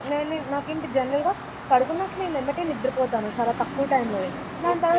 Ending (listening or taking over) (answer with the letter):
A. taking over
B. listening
A